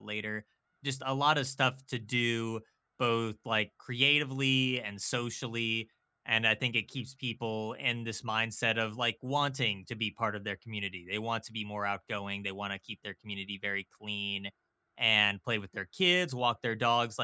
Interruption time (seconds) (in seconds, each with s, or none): none